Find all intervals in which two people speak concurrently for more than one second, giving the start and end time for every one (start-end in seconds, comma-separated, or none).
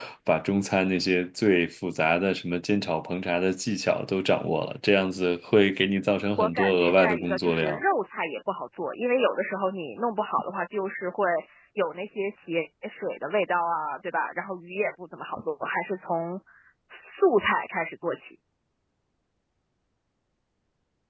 6.4-7.8